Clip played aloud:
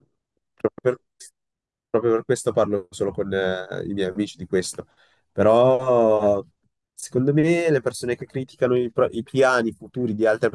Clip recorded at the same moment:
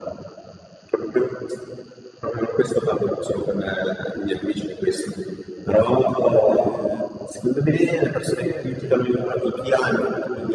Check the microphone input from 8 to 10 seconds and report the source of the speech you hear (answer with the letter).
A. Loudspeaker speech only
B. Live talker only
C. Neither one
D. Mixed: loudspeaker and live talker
D